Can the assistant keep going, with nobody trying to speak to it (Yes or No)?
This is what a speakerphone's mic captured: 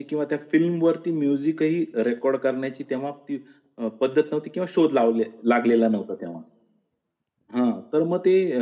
Yes